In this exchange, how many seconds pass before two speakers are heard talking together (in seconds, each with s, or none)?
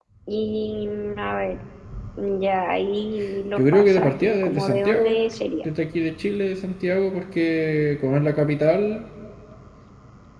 3.6 s